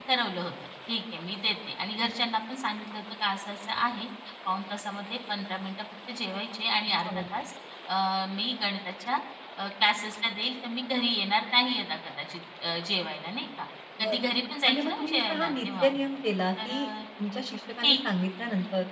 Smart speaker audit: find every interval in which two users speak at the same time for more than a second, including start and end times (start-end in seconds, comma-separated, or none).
14.6-15.9